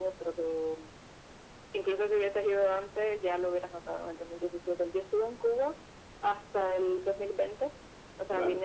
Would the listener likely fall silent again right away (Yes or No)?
Yes